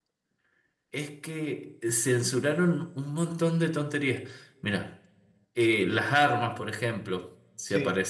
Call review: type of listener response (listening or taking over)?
listening